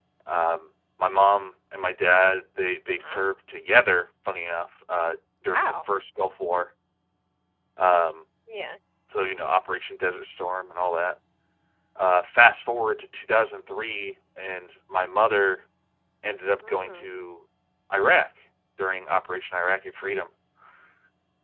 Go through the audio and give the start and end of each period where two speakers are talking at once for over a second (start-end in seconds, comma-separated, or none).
none